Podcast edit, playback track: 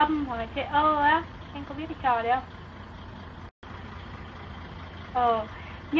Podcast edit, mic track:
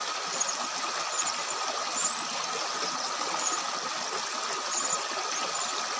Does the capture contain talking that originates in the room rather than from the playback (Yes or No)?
No